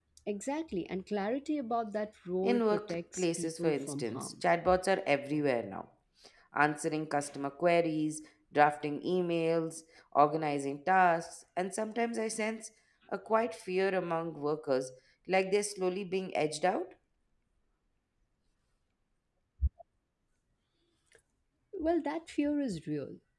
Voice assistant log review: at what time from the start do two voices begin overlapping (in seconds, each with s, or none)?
2.4 s